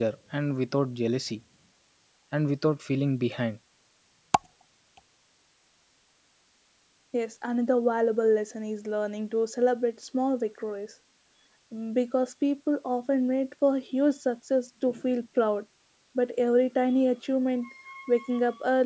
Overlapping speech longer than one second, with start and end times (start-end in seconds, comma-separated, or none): none